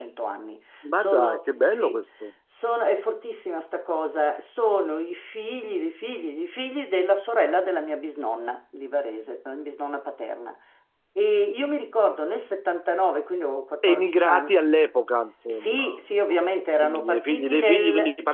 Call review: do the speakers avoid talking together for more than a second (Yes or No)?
No